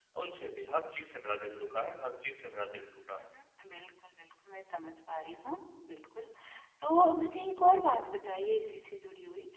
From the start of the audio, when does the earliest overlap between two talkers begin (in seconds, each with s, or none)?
none